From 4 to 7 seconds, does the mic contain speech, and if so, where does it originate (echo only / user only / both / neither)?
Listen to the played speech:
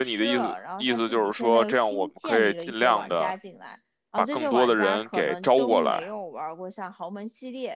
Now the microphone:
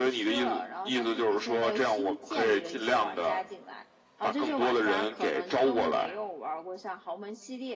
echo only